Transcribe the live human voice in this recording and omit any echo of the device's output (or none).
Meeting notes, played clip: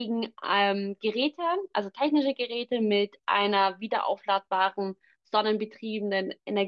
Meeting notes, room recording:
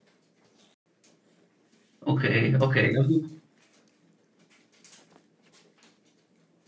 Okay, okay. Ja, gut.